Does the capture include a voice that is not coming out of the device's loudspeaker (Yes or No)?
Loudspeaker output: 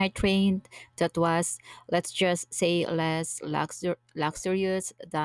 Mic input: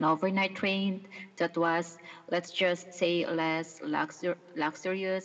No